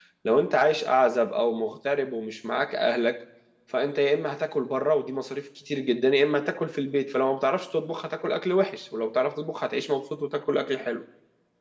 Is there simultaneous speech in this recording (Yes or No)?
No